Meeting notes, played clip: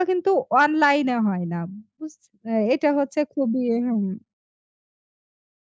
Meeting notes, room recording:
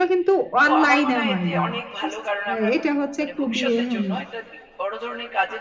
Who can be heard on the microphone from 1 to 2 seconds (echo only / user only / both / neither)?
both